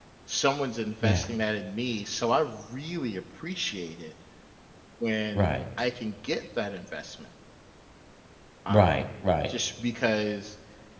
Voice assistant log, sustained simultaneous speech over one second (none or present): none